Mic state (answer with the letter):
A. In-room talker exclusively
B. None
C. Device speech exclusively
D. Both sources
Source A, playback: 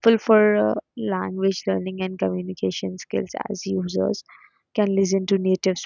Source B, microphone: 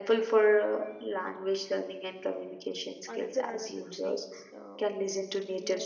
D